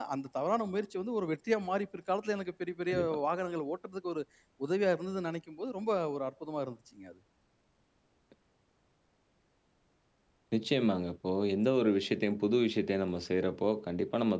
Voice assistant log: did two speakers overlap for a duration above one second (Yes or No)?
No